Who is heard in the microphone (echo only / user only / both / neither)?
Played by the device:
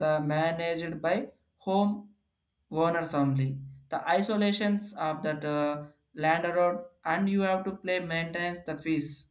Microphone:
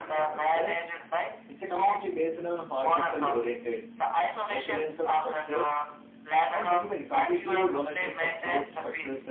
both